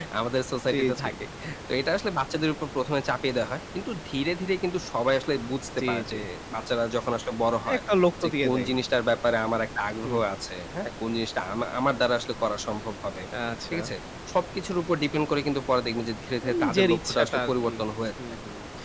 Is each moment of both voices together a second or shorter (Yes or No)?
No